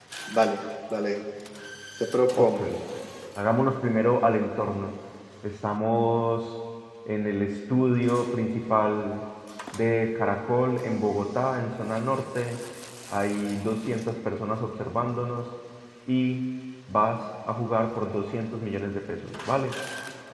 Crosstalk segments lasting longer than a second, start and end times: none

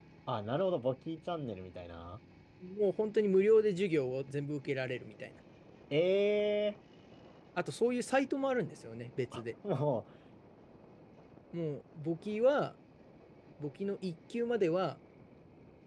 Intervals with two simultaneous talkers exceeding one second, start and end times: none

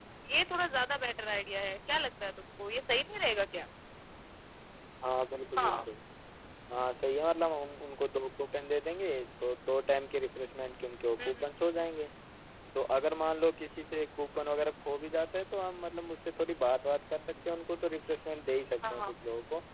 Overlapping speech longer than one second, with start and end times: none

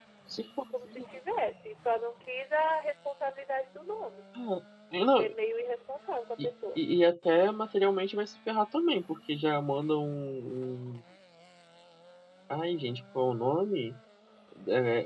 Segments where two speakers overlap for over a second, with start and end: none

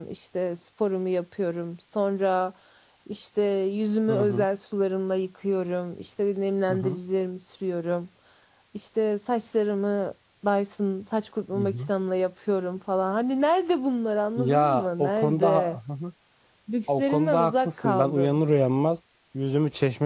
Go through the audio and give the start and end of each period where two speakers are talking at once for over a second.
14.4-15.8, 17.0-18.4

